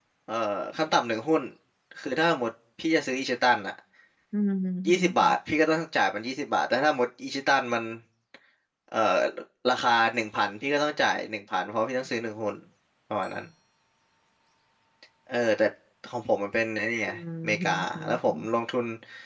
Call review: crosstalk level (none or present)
present